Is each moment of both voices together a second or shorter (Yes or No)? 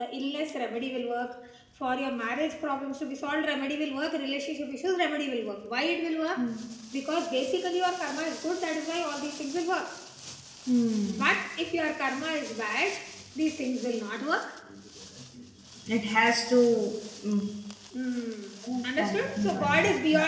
No